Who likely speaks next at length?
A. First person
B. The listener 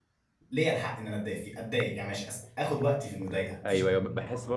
B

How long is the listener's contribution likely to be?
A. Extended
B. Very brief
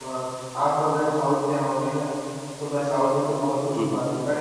B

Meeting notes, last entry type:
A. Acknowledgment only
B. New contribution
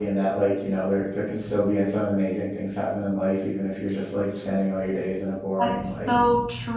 B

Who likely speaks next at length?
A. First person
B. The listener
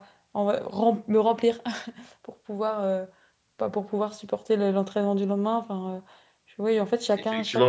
B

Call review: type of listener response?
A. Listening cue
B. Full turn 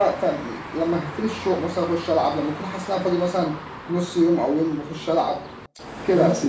A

